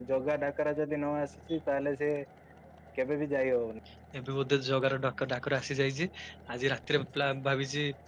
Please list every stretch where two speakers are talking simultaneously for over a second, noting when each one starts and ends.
none

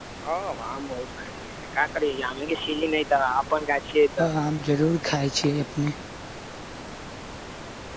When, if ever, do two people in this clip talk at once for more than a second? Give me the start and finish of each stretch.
none

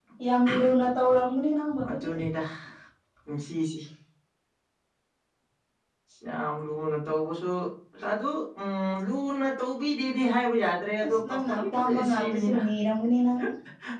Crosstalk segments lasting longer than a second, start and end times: 11.0-12.6

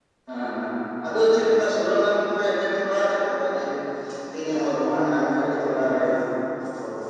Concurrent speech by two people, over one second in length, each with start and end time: 4.5-6.0

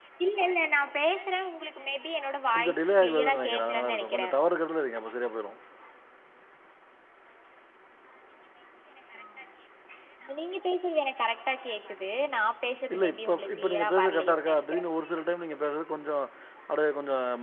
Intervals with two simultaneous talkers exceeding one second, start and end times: 2.5-4.2, 12.9-14.8

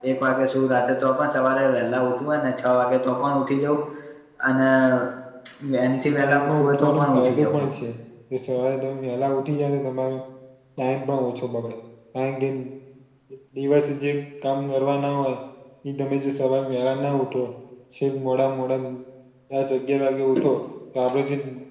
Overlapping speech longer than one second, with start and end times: 6.2-7.6

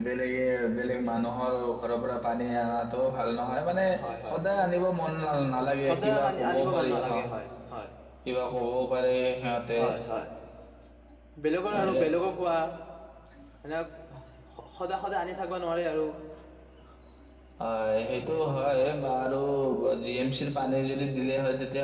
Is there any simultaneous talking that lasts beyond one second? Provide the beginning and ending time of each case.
5.9-7.2

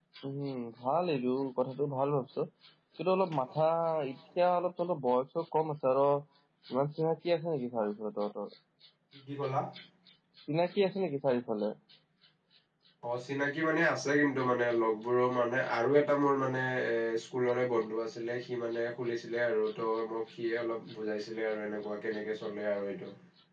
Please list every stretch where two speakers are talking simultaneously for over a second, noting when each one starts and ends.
none

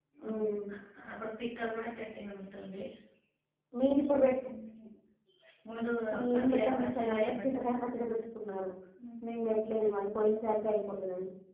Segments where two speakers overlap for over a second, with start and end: 6.3-7.7

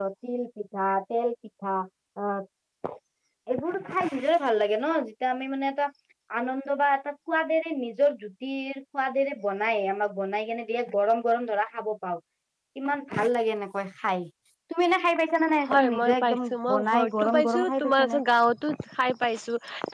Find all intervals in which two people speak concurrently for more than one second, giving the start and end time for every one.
15.7-18.2

